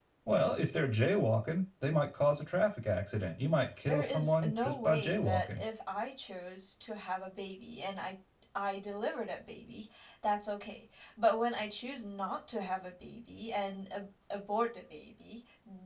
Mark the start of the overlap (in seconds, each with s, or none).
3.9 s